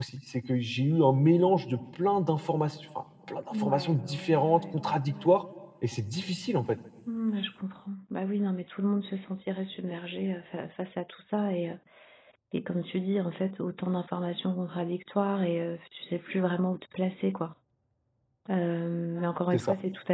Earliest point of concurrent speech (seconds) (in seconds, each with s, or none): 3.5 s